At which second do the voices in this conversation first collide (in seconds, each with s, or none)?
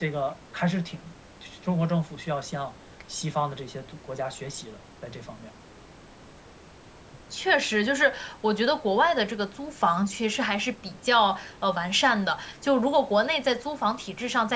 none